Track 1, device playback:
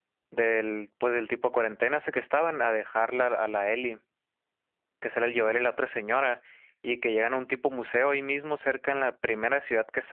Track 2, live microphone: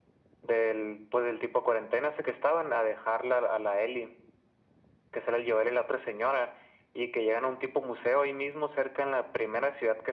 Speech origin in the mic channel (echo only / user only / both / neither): echo only